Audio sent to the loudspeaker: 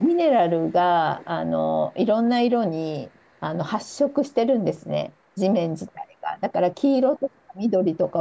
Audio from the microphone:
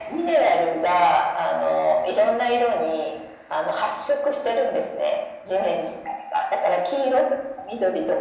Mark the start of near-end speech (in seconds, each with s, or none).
none